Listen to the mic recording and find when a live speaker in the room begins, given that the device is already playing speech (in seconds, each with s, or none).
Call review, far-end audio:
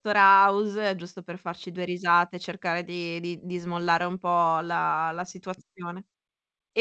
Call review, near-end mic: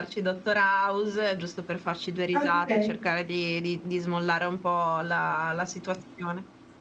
2.4 s